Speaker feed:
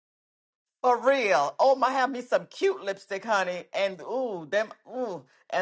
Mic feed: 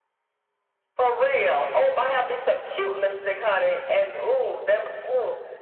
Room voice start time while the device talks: none

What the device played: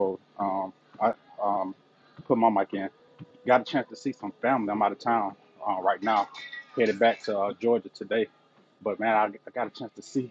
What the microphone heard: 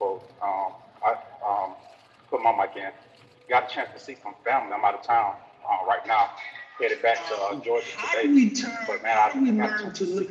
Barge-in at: 7.1 s

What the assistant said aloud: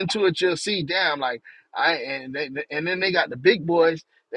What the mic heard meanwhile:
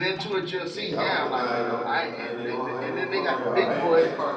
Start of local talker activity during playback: 0.7 s

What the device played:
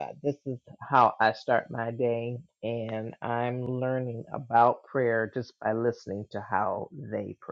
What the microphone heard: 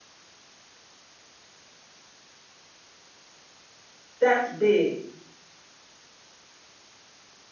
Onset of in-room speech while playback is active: 4.2 s

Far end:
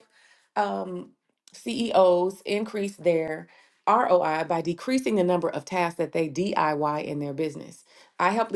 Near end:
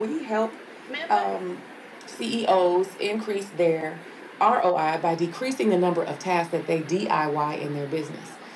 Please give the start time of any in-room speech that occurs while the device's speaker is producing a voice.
0.9 s

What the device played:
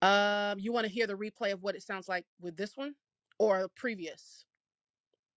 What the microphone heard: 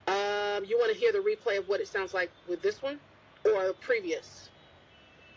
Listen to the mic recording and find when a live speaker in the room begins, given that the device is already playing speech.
none

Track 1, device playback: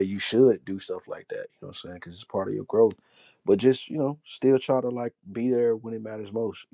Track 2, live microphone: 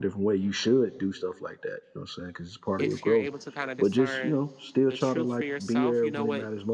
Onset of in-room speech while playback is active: 2.8 s

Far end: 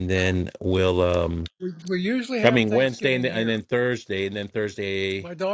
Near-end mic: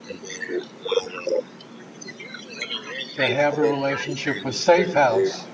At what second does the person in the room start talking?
3.2 s

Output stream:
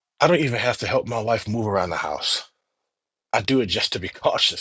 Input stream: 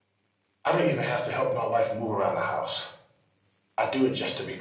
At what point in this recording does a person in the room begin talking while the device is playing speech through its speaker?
none

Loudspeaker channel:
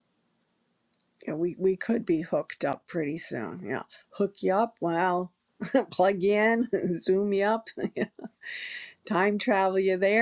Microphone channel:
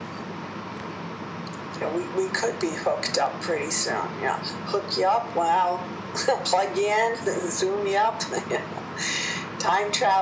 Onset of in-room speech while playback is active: none

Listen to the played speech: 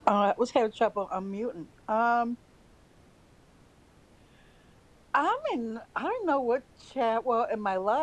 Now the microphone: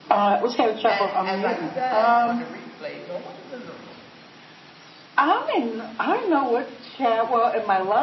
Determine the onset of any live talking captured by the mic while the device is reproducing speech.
0.9 s

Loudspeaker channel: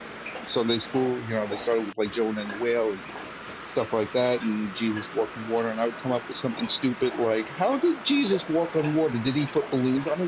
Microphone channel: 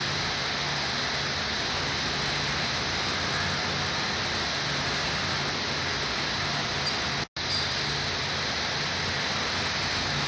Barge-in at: none

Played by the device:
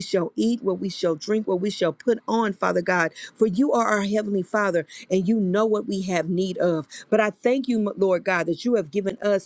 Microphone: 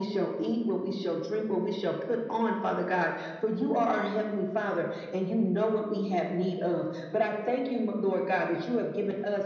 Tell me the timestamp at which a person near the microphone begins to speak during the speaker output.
none

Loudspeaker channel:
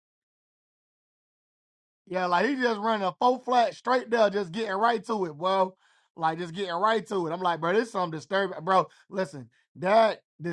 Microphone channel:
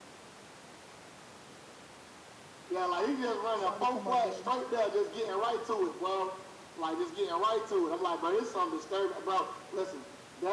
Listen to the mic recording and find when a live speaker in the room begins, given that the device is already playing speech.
3.6 s

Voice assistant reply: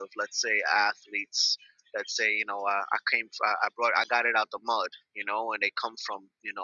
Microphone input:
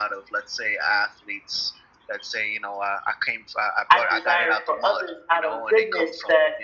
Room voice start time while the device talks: 3.9 s

